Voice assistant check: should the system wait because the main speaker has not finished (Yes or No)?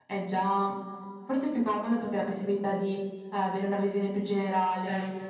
Yes